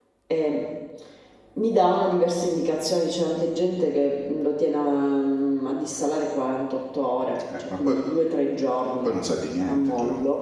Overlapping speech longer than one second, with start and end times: none

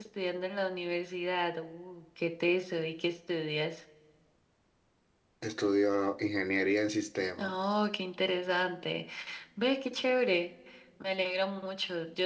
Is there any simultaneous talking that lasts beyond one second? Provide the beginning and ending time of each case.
none

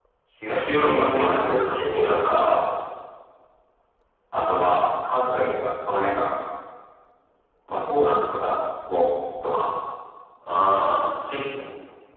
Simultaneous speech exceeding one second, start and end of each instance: 0.8-2.6

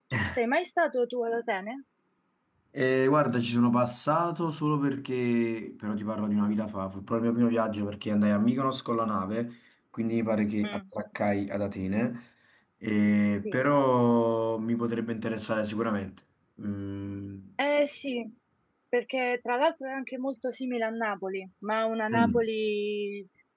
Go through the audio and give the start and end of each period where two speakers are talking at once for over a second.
none

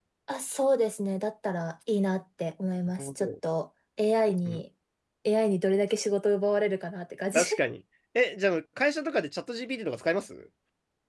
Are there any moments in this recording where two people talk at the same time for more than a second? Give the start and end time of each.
none

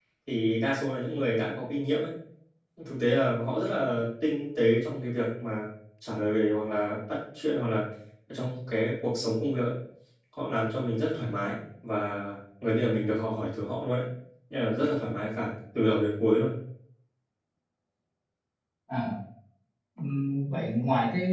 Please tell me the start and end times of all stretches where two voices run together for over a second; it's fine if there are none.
none

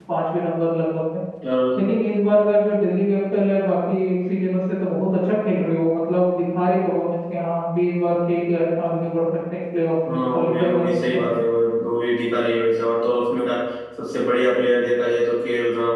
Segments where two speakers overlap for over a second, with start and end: 10.1-11.3

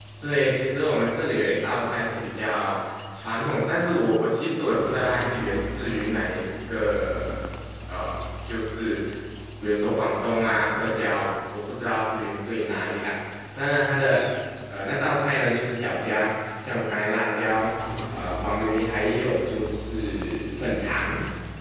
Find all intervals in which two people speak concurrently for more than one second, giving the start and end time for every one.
none

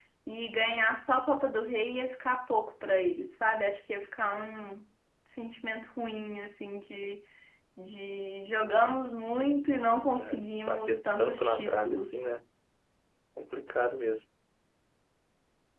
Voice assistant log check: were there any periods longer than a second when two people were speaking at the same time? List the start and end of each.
10.2-12.2

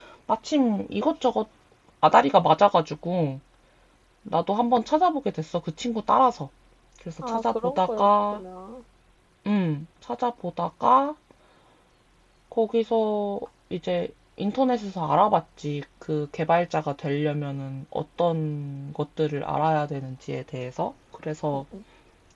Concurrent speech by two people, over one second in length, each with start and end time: 7.2-8.4

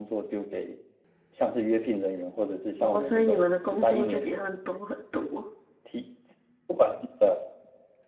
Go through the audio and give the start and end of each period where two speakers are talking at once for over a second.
2.8-4.5

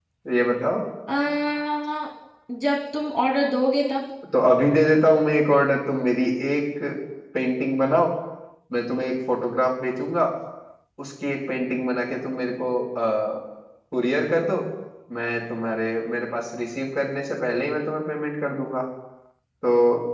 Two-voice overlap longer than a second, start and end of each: none

